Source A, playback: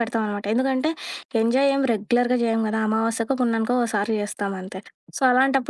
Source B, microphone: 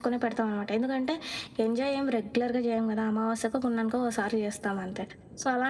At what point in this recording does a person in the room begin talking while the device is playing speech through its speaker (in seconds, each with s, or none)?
none